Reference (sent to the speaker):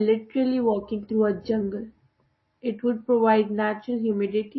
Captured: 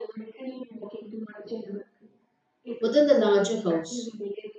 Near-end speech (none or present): present